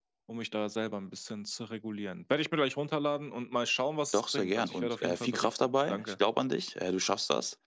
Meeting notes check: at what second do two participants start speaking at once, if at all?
4.1 s

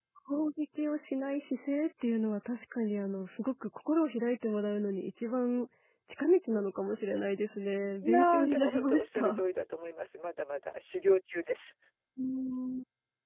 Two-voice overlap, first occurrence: 8.0 s

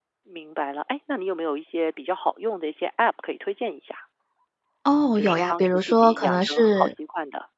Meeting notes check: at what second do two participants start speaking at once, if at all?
5.2 s

